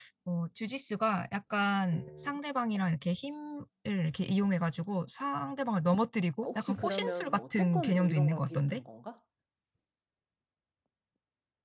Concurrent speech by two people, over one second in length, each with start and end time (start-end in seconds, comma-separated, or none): 6.4-8.8